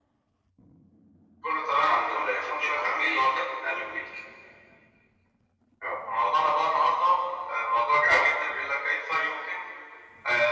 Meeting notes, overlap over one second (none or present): present